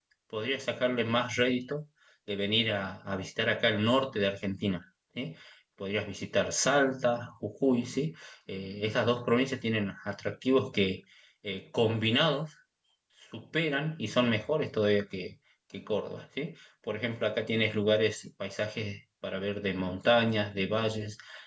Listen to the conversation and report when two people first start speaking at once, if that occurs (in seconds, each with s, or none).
none